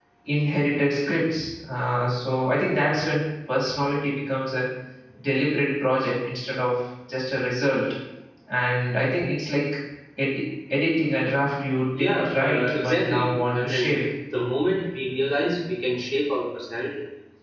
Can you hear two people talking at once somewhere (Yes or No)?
Yes